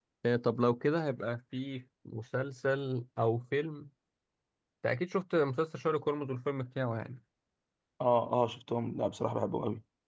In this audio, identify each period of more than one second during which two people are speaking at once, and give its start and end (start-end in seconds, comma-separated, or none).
none